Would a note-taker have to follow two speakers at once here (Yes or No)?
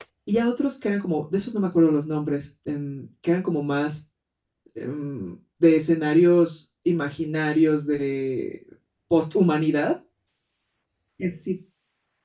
No